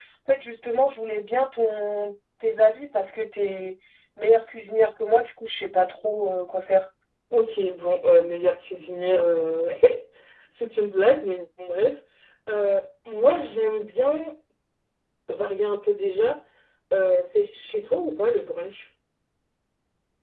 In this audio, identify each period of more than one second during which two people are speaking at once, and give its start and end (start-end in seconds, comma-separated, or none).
none